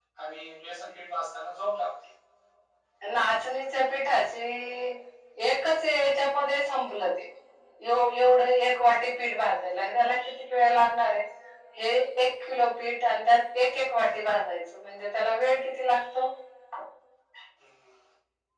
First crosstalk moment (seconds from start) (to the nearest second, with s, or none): none